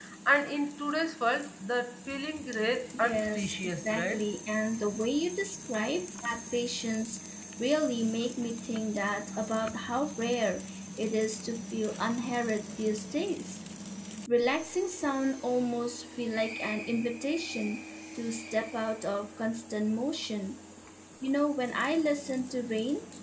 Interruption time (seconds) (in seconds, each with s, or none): 2.9 s